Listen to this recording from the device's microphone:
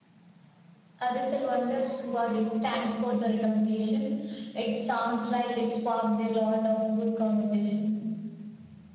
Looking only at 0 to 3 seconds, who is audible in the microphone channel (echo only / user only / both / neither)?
echo only